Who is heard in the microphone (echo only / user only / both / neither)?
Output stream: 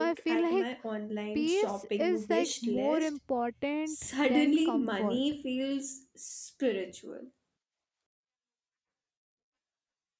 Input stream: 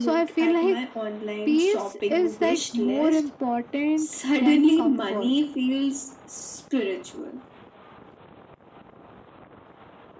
echo only